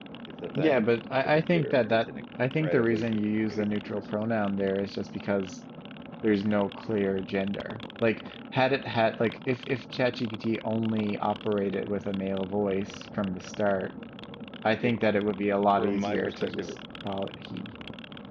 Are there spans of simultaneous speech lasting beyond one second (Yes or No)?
Yes